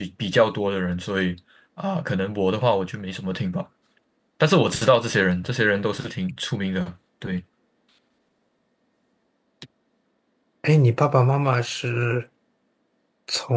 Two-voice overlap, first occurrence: none

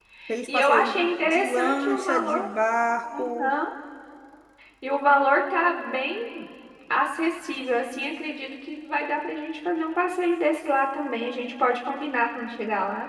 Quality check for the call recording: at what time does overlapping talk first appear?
0.5 s

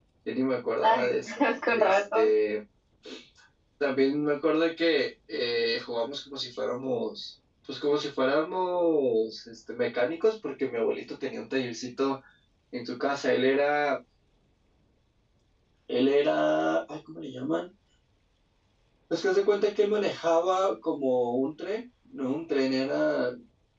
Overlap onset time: 0.8 s

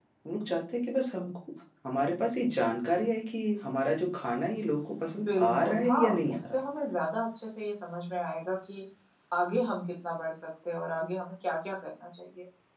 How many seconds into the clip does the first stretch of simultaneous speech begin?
5.3 s

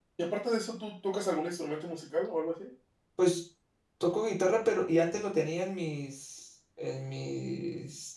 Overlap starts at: none

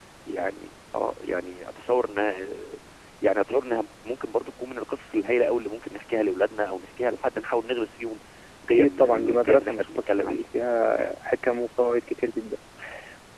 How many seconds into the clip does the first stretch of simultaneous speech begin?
8.7 s

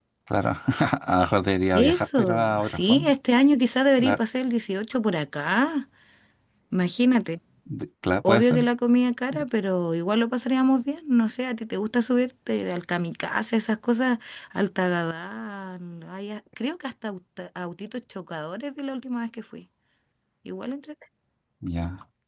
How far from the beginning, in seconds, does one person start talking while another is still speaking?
1.7 s

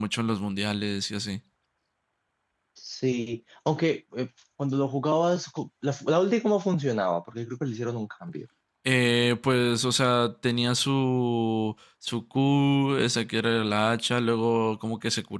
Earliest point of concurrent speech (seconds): none

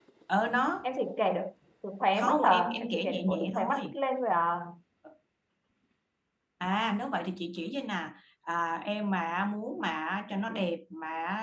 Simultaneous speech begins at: 2.2 s

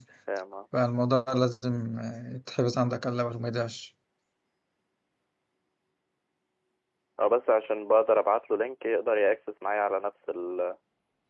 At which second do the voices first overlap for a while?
none

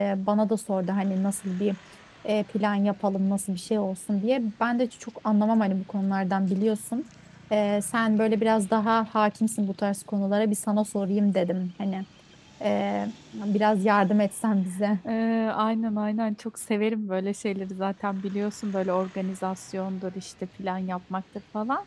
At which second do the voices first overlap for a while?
none

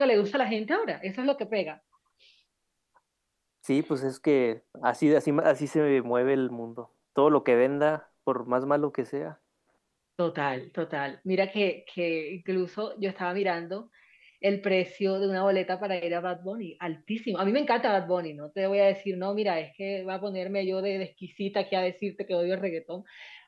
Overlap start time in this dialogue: none

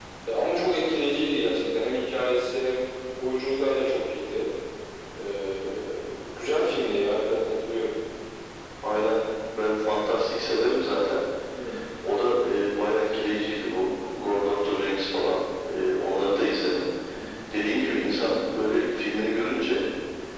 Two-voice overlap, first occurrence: none

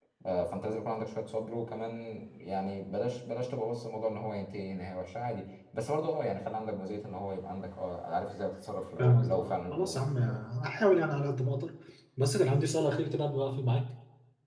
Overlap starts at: 9.0 s

